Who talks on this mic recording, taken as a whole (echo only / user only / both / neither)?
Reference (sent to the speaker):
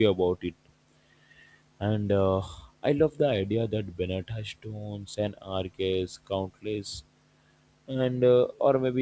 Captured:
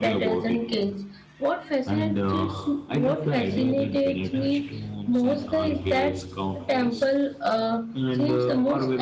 both